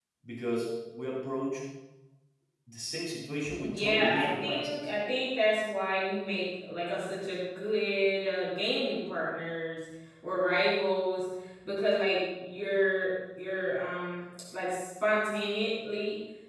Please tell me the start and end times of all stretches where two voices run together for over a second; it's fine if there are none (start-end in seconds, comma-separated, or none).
3.6-4.9